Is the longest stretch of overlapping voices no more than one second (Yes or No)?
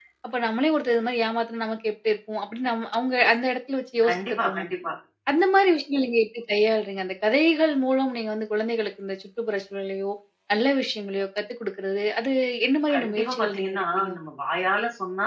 No